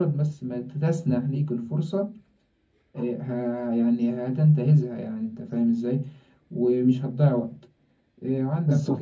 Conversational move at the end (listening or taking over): listening